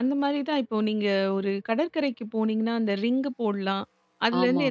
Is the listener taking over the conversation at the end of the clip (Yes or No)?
No